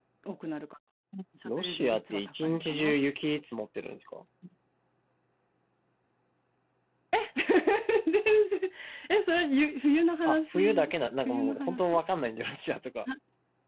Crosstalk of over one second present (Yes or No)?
Yes